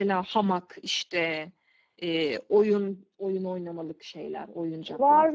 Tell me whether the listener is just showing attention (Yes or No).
No